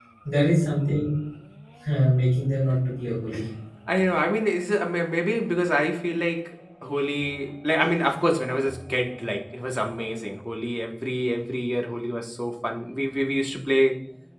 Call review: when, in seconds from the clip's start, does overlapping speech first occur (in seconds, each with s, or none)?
none